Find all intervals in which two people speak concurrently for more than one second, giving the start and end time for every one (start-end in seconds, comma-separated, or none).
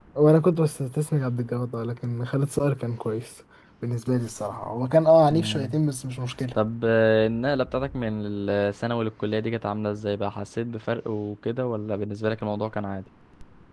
none